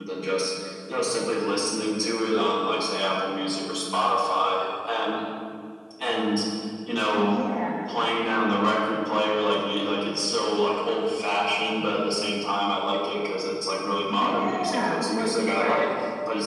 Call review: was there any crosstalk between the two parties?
Yes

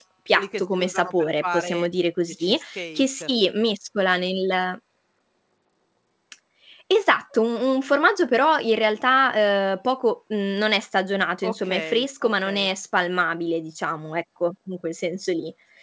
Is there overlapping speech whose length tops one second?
Yes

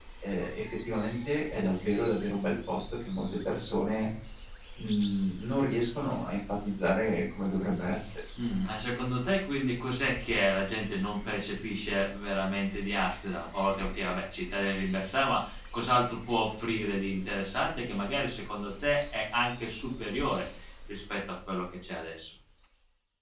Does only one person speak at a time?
Yes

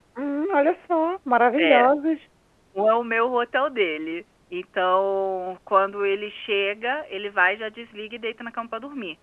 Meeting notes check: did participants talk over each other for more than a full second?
No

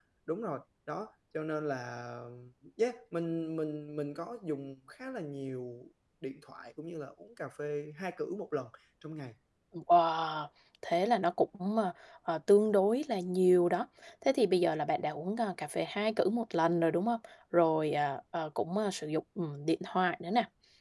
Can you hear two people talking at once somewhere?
No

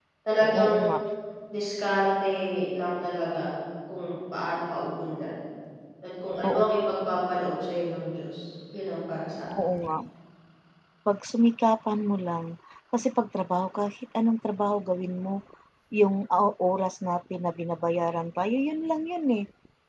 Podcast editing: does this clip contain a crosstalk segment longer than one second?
No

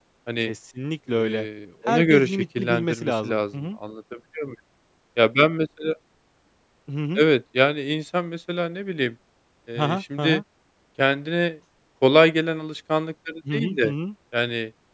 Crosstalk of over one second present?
Yes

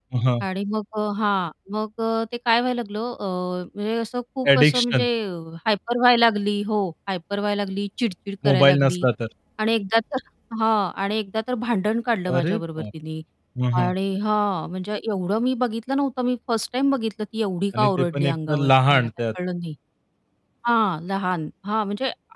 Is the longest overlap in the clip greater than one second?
Yes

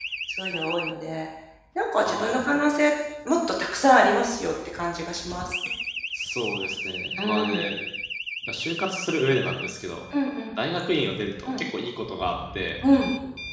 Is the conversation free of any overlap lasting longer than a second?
Yes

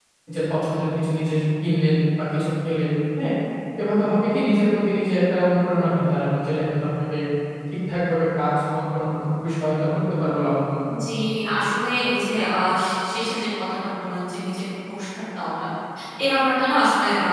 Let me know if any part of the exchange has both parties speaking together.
No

